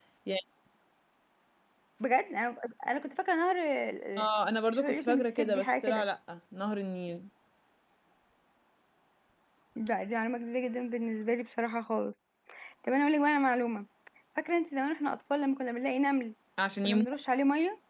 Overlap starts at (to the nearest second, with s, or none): 5 s